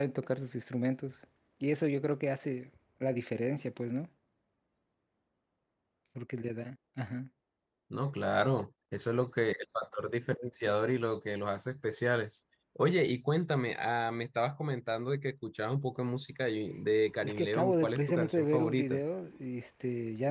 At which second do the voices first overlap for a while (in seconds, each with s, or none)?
17.2 s